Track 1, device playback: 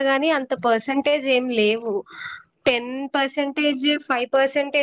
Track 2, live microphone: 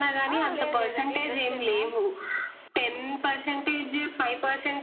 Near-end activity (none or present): present